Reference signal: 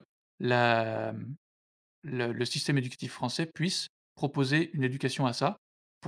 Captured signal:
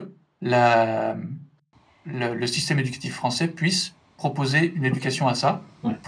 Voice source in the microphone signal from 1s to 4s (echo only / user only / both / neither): echo only